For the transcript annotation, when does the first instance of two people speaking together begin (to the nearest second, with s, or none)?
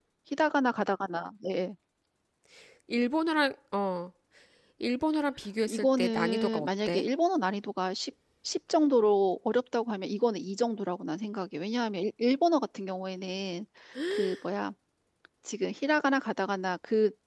6 s